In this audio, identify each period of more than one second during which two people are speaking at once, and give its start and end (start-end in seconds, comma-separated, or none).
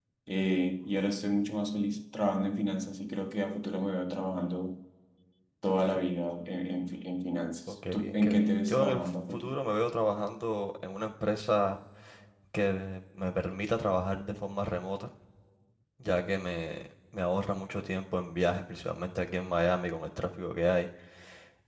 7.9-9.6